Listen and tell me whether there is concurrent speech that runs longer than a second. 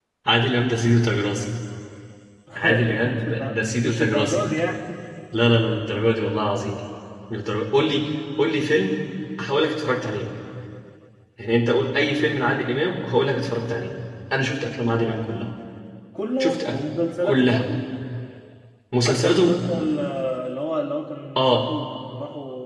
Yes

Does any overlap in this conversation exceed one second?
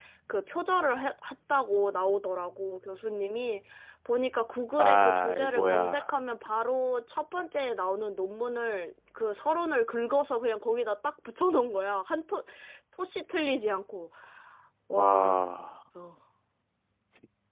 Yes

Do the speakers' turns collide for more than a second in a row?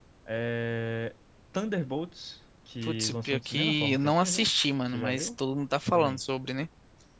Yes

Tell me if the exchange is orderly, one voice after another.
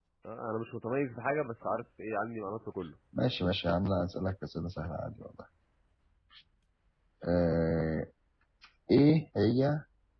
Yes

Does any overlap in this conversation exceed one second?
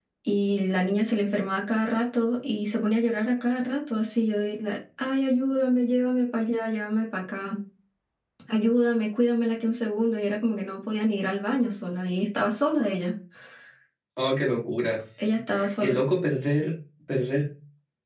No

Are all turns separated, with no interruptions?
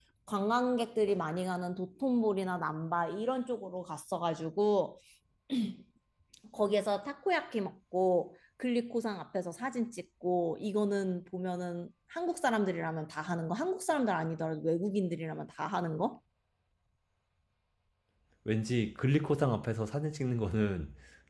Yes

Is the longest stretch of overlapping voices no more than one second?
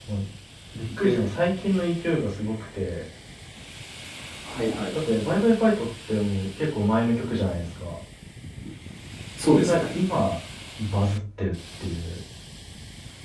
Yes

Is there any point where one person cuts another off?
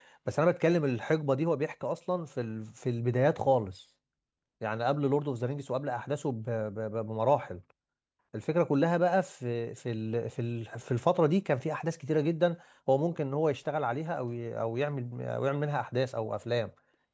No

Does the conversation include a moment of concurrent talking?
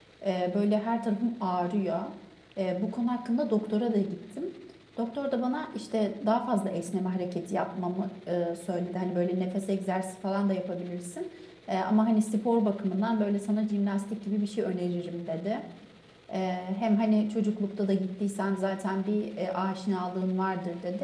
No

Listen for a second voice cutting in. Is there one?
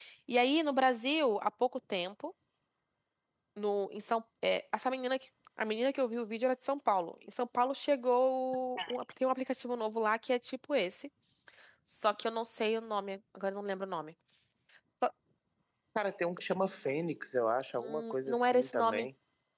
Yes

